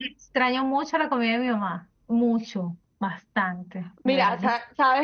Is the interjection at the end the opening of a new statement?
Yes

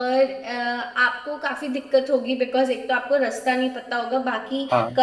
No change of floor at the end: Yes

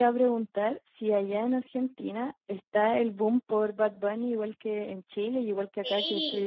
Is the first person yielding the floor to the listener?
Yes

